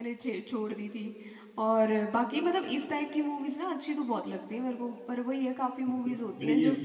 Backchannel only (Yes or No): No